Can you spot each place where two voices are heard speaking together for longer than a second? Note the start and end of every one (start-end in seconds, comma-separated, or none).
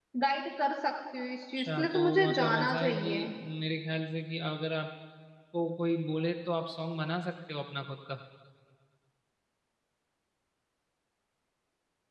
1.6-3.1